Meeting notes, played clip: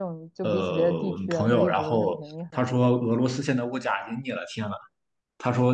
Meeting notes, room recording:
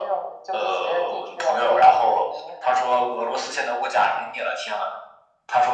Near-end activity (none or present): none